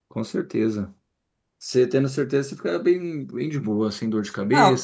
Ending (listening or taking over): taking over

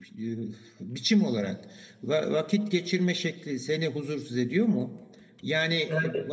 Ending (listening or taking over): listening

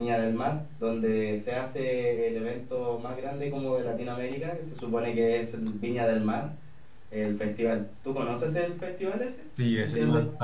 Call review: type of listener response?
taking over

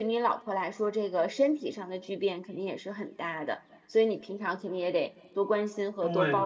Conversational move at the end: taking over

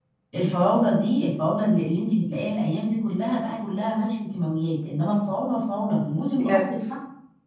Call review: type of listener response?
listening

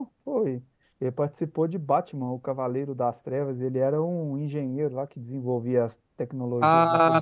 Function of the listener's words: taking over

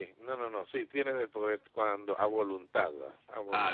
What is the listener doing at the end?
taking over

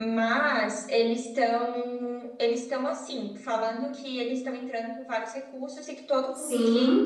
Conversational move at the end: listening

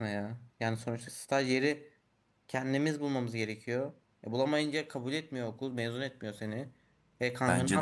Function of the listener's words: listening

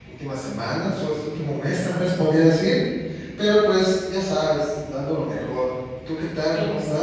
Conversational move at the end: taking over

